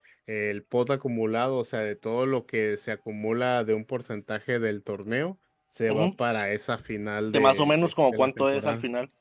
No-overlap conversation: No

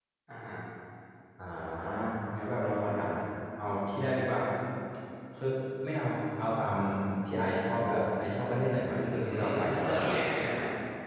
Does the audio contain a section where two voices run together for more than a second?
Yes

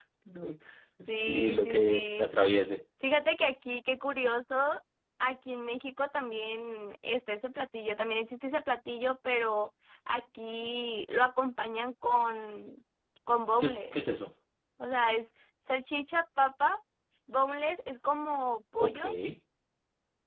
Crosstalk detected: Yes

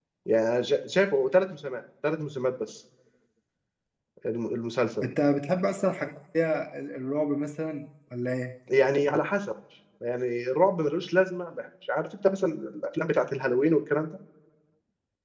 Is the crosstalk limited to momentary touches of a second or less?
Yes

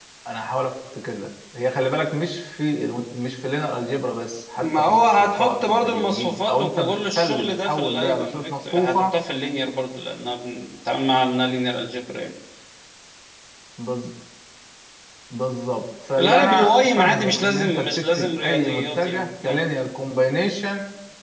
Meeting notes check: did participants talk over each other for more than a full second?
Yes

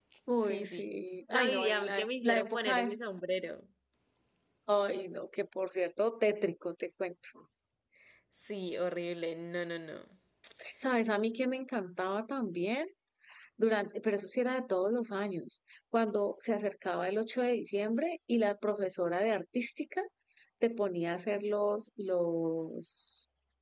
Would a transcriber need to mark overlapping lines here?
Yes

